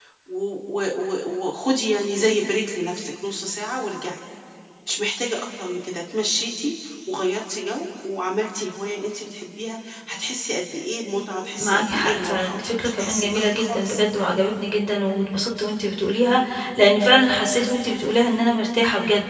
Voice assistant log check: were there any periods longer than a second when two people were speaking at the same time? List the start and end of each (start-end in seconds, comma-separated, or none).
11.6-14.0